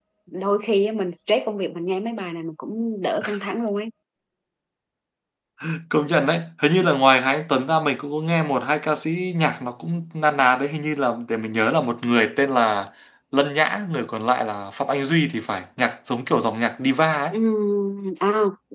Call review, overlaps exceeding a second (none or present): none